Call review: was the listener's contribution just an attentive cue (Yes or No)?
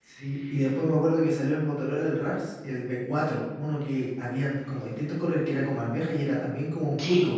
No